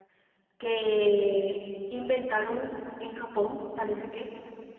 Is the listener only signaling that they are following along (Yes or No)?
Yes